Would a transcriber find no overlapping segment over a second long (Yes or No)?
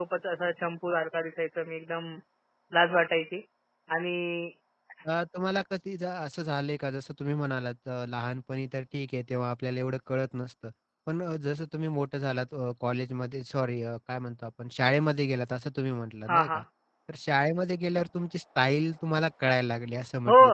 Yes